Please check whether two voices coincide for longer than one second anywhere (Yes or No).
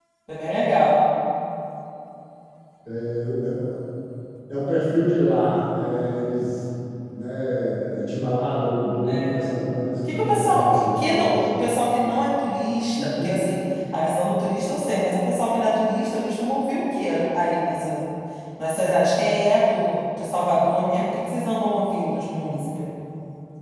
Yes